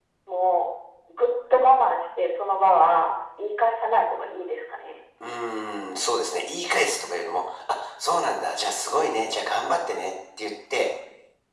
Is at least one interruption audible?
No

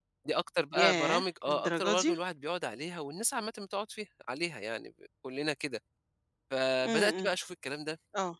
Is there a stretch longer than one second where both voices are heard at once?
Yes, from 0.8 s

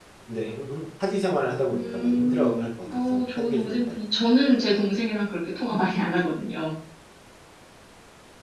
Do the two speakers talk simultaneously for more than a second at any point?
Yes, from 1.7 s

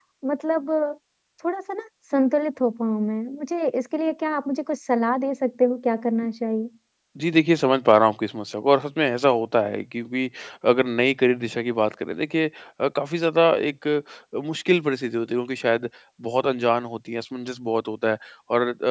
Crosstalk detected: No

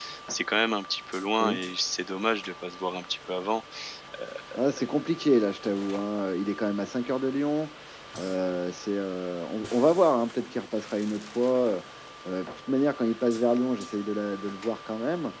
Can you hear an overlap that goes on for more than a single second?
No

